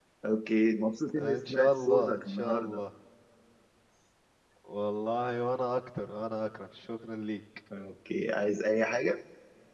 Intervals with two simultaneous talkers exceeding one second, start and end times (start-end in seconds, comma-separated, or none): 1.2-2.8